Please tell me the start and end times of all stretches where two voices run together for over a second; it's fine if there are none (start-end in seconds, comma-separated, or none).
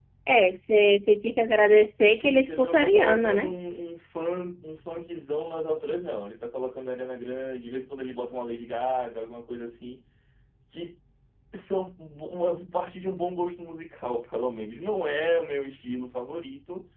2.2-3.6